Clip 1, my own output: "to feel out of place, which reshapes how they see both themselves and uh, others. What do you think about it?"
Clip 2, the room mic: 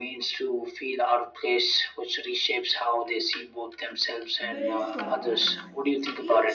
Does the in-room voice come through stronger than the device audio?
No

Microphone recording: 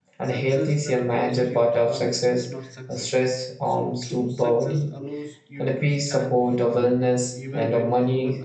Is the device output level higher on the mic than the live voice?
No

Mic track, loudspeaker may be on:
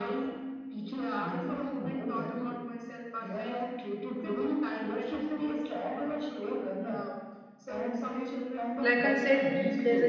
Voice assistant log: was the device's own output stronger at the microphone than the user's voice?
No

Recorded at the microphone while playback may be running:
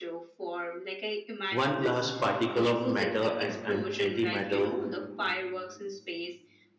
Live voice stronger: Yes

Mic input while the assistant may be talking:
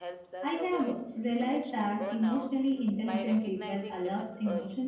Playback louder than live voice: No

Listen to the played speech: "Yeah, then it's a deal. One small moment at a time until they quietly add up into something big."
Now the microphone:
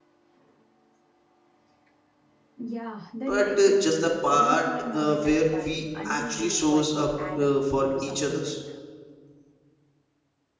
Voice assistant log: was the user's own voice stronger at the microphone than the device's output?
Yes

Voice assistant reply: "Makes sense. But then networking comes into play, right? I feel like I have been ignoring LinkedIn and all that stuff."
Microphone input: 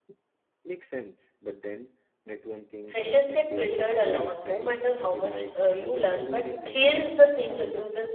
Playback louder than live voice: No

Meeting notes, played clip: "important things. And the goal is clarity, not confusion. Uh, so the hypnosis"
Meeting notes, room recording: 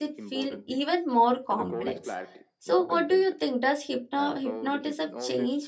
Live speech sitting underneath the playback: No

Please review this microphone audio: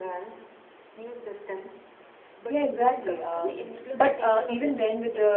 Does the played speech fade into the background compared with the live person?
Yes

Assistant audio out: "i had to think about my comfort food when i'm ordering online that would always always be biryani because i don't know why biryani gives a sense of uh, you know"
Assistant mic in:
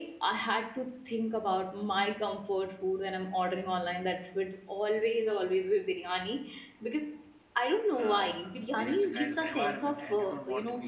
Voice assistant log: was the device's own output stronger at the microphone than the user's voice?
Yes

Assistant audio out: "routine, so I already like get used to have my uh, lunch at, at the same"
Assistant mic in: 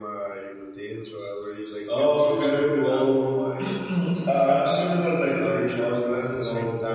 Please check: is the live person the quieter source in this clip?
No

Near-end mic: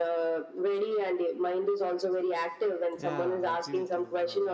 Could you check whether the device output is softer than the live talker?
No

